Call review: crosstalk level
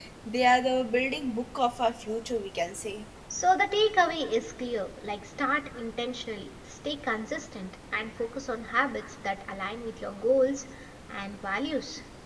none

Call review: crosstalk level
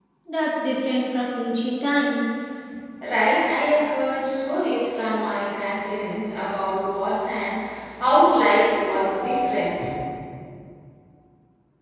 none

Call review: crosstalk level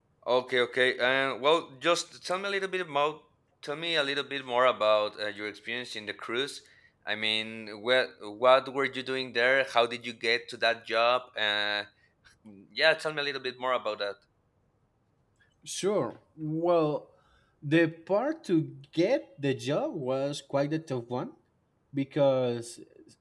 none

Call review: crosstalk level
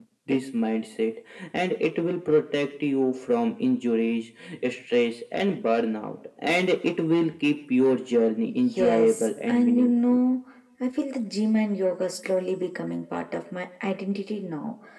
present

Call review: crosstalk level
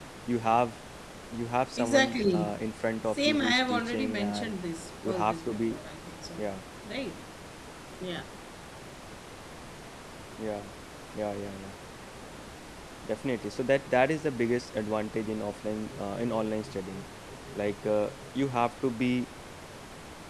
present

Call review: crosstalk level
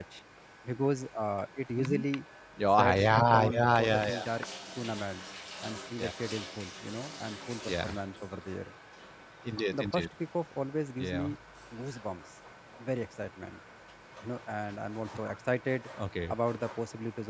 present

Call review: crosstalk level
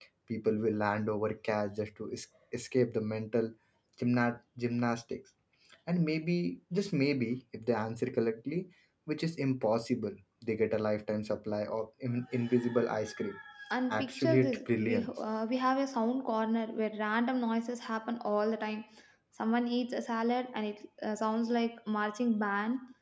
present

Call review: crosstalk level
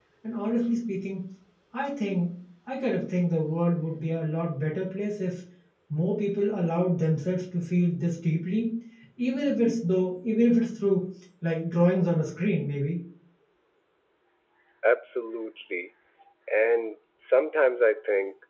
none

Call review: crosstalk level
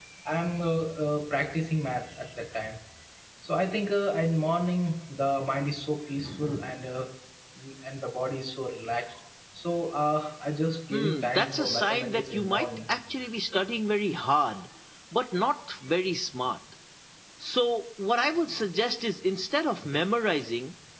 present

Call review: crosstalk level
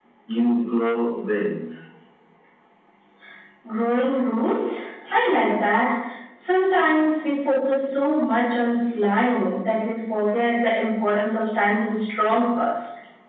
none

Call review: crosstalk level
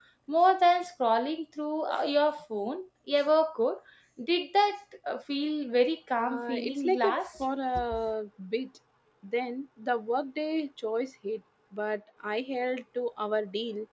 present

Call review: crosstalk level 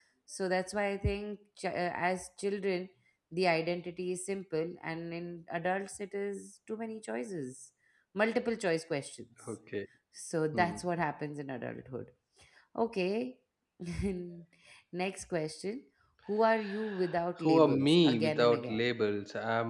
present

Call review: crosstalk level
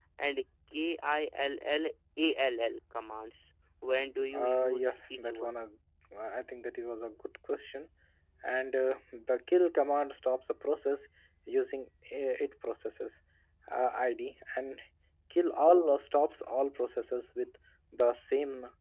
present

